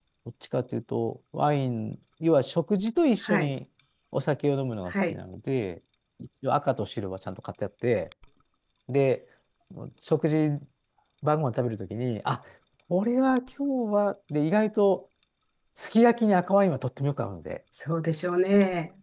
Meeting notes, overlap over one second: none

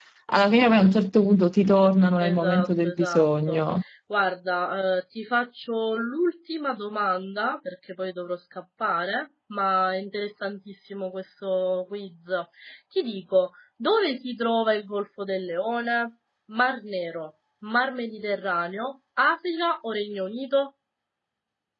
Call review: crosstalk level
present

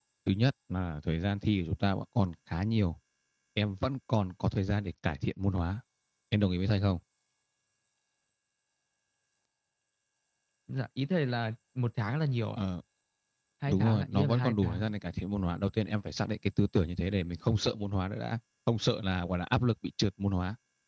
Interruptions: present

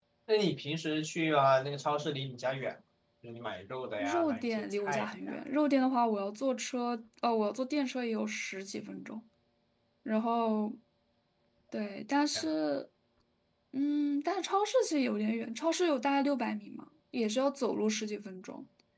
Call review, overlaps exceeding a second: present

